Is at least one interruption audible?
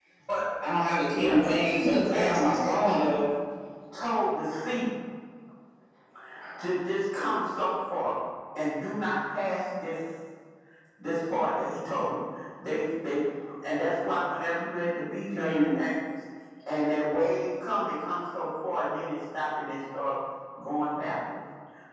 Yes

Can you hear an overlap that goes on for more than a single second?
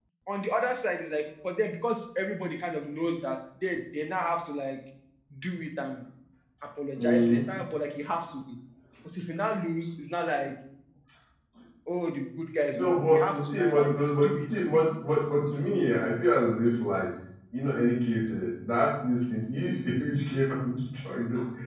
Yes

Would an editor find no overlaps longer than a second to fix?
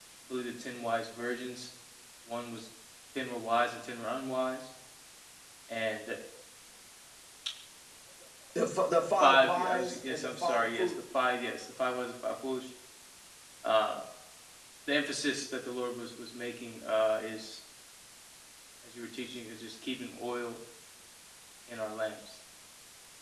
No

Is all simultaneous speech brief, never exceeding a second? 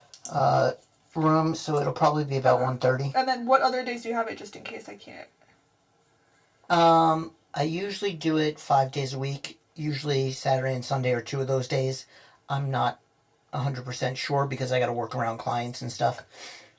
Yes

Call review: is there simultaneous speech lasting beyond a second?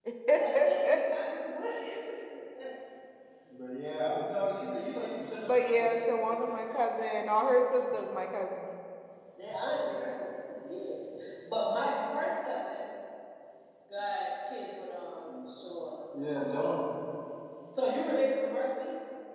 No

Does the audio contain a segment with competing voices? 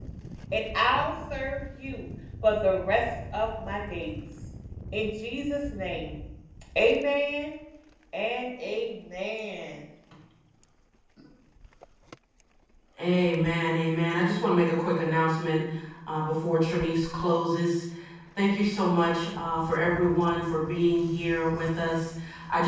No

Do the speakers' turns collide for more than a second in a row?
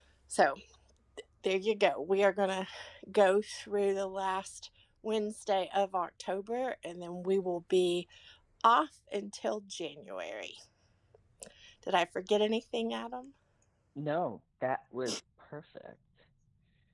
No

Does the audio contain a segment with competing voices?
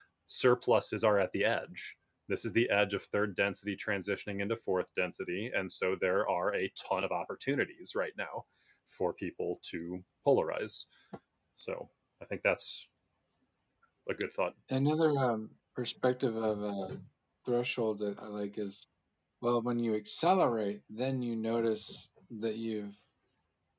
No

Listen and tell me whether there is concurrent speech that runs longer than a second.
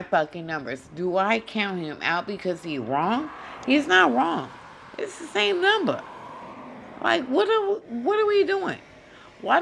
No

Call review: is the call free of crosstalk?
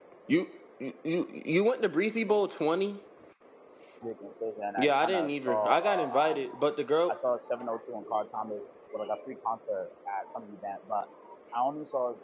No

